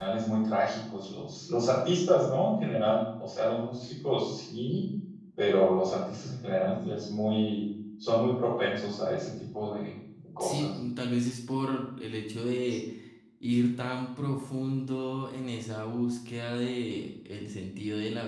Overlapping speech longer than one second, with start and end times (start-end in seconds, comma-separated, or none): none